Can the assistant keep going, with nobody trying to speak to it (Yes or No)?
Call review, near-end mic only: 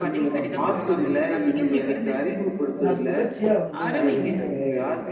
No